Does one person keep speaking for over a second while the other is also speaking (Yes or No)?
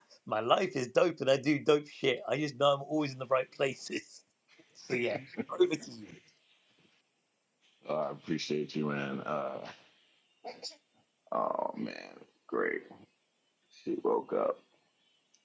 No